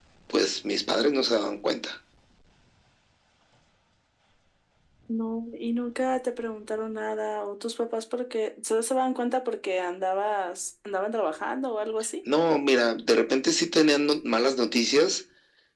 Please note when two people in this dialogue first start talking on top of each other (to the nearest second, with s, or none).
none